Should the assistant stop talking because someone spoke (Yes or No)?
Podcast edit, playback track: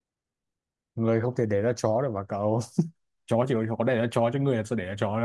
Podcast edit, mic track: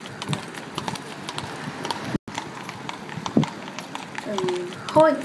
Yes